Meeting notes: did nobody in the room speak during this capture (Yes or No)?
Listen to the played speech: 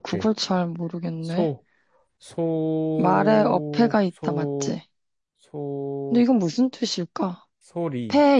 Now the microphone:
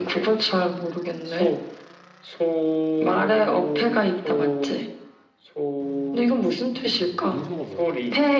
No